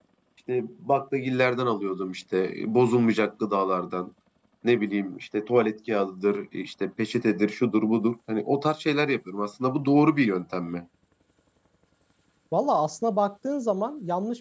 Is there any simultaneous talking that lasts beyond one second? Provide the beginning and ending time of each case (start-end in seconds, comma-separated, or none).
none